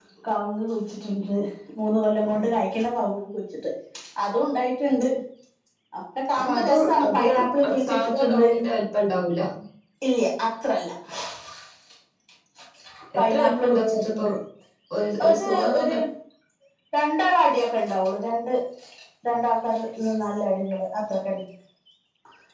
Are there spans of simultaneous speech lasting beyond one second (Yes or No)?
Yes